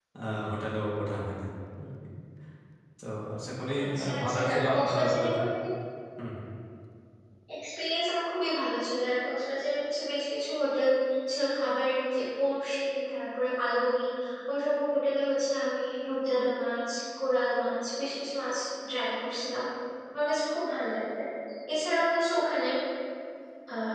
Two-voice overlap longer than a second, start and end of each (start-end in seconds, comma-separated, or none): 3.8-5.4